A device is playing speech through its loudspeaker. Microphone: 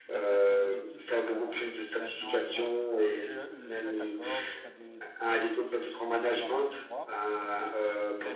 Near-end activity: present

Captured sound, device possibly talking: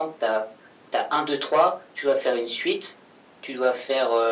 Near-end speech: none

